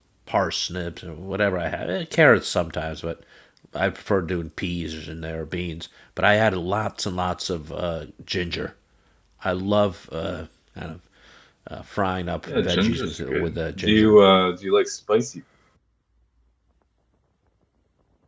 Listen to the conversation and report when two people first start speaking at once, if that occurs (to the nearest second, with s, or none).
12 s